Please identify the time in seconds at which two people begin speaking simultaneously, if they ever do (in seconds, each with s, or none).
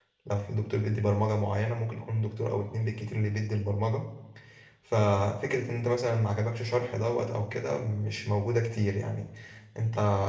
none